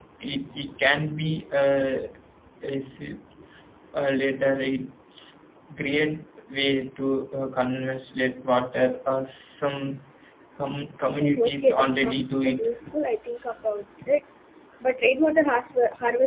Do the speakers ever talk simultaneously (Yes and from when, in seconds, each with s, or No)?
Yes, from 11.2 s